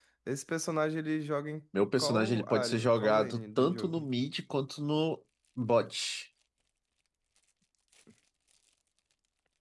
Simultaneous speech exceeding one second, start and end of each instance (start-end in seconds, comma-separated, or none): 2.0-4.0